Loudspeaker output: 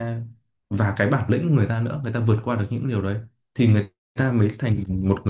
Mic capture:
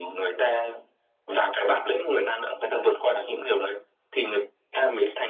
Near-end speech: none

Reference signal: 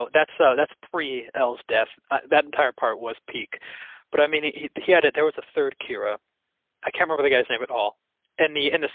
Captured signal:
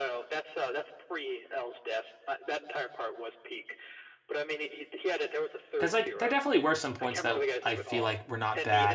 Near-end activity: present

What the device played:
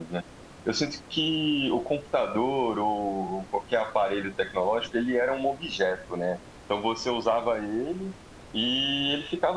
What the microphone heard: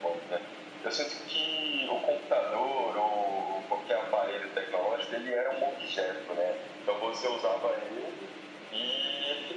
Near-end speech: none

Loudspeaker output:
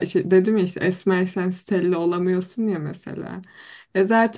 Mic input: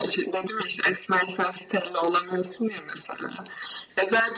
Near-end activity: none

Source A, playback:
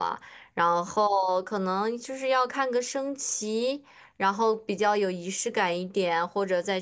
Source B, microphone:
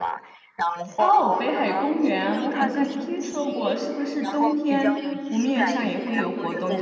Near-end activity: present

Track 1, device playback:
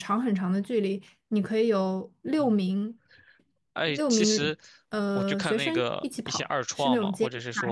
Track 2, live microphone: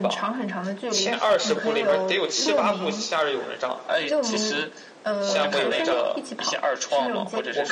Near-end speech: present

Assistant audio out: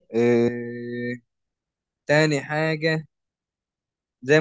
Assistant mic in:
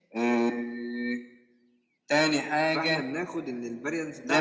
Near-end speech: present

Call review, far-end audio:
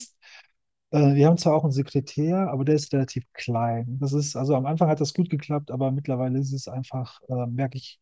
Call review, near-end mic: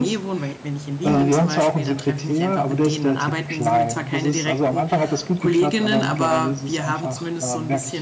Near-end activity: present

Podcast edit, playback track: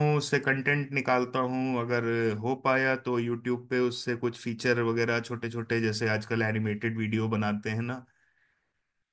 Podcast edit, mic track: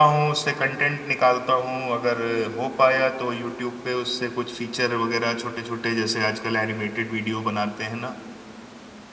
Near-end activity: none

